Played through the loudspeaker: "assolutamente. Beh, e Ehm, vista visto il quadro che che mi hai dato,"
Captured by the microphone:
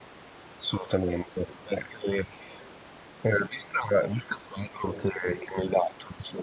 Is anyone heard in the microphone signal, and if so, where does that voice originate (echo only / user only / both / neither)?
echo only